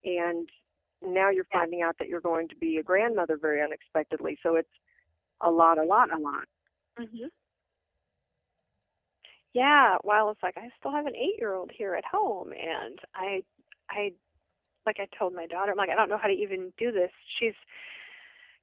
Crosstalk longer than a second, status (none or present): none